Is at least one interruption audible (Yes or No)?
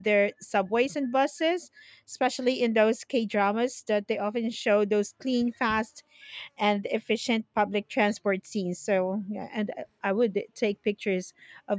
No